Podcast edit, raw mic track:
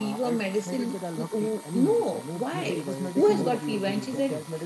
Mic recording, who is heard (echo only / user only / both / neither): both